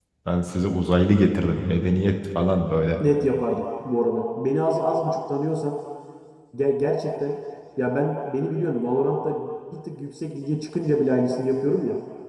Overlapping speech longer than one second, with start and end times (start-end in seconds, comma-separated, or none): none